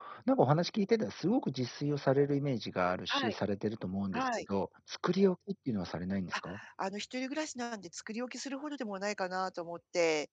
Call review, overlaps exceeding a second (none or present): none